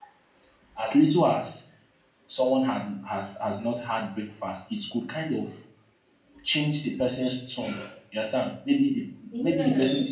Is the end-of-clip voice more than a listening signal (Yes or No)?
No